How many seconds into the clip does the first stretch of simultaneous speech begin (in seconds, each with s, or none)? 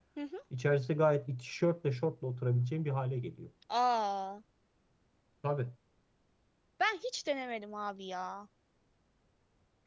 none